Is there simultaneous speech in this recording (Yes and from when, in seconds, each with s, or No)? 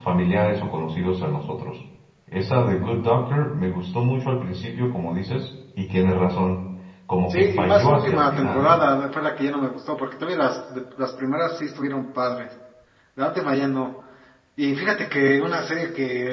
Yes, from 7.3 s